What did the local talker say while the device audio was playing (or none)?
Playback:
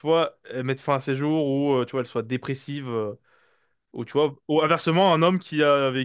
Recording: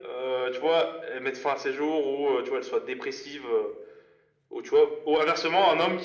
none